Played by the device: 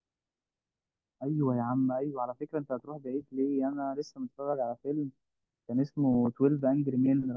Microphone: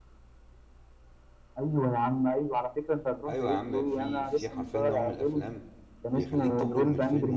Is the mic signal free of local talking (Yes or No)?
No